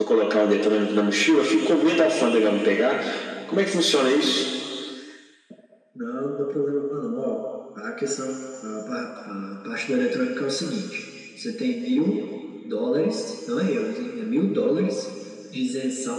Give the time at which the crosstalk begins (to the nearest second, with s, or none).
none